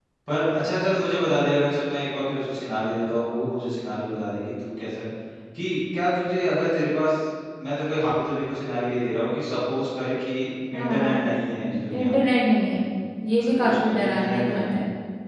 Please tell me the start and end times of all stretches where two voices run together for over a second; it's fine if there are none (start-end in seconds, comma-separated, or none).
13.4-14.8